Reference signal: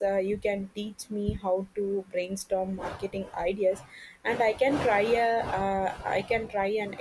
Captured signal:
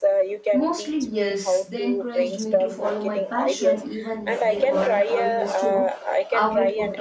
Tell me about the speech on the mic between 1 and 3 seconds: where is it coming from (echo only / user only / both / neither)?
both